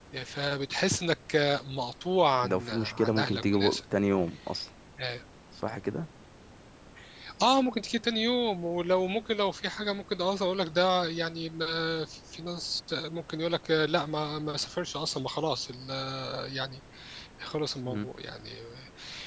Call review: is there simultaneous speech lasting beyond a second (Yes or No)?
Yes